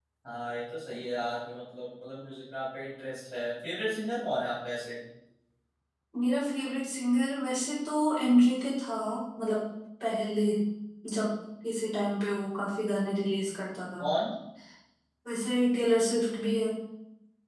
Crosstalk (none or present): none